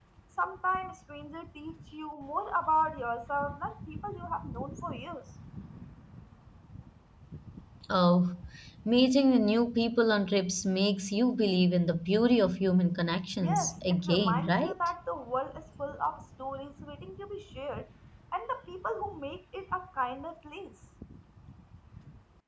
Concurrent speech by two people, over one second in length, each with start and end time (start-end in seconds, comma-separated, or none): 13.4-14.7